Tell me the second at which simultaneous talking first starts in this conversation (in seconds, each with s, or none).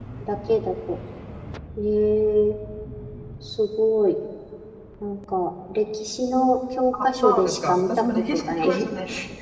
6.9 s